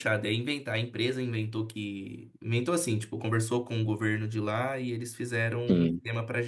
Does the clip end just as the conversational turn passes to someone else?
No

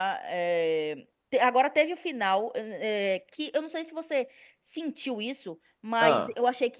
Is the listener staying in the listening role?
Yes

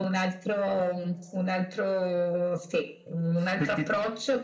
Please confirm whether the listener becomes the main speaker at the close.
No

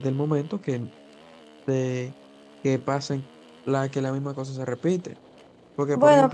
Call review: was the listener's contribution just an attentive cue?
Yes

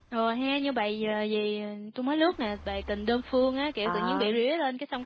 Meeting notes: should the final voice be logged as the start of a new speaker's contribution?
No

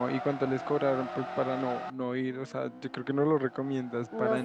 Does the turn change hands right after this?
Yes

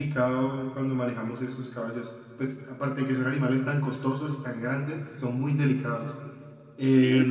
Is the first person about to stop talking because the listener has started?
Yes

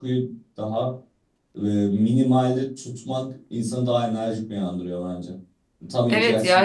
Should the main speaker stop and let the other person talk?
Yes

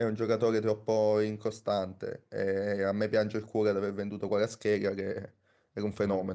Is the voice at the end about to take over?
No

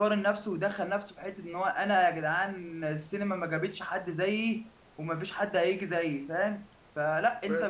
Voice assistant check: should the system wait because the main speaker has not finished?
Yes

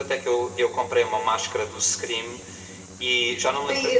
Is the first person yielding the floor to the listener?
No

